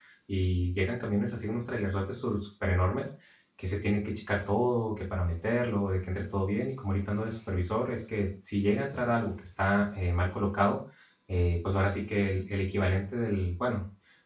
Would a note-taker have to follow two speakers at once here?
No

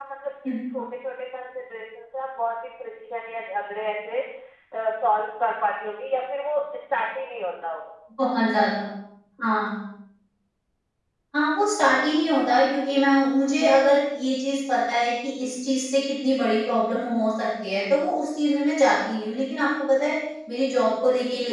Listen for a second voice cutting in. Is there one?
No

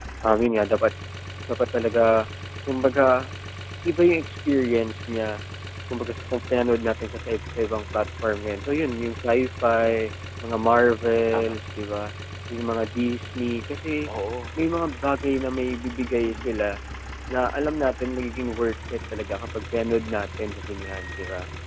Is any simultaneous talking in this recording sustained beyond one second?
No

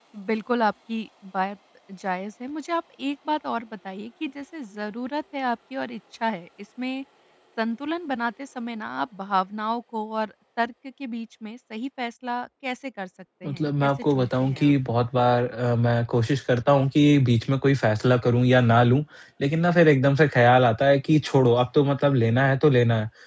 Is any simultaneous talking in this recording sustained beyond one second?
Yes, from 13.4 s

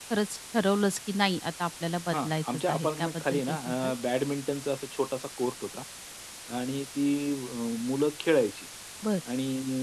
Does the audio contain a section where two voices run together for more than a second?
Yes, from 2.1 s

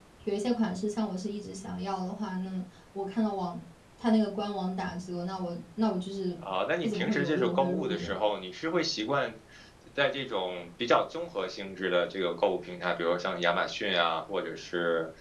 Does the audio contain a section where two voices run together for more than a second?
Yes, from 6.8 s

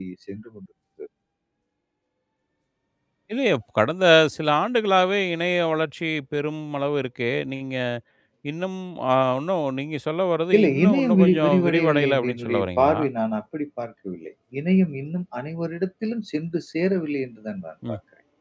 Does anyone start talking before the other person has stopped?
Yes, from 10.5 s

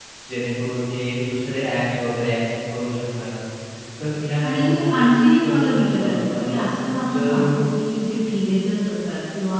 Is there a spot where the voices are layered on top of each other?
Yes, from 4.5 s

